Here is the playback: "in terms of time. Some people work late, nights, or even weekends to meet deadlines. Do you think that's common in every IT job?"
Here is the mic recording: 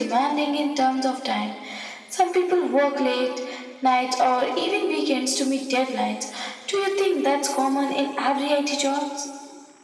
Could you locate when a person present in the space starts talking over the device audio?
none

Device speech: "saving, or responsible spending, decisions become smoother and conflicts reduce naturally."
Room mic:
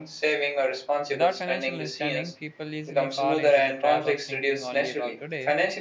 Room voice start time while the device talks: 1.1 s

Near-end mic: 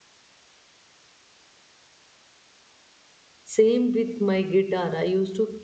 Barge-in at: 3.4 s

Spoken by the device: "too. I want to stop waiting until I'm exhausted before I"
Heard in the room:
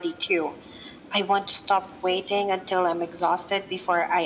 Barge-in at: none

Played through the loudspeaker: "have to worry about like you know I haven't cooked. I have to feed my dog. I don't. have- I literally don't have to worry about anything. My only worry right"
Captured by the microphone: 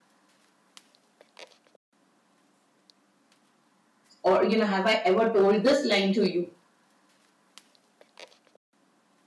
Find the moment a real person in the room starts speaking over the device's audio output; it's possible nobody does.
4.2 s

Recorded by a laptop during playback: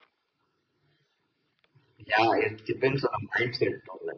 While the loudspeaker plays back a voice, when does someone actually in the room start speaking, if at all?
none

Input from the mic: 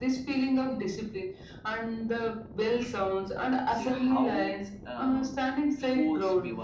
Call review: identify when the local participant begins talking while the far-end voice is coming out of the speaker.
3.7 s

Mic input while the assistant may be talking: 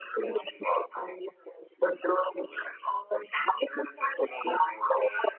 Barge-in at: none

